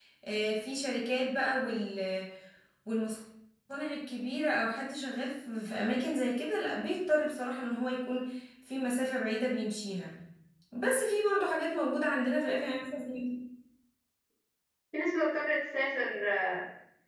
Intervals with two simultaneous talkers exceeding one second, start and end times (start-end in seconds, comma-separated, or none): none